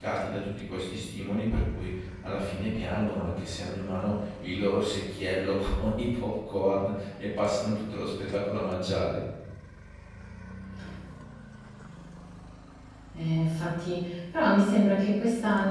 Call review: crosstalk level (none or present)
none